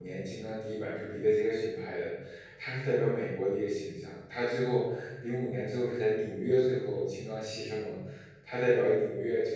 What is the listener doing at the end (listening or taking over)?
listening